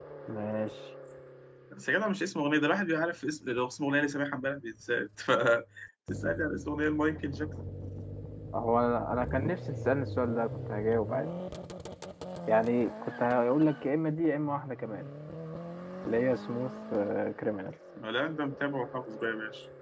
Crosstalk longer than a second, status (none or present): none